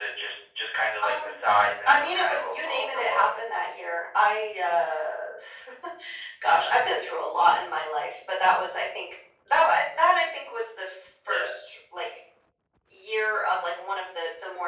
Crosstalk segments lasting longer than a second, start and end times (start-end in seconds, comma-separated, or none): 1.9-3.3